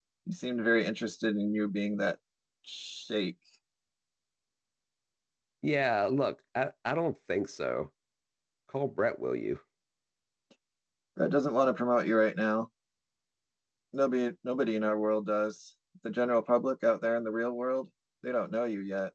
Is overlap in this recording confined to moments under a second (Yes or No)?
Yes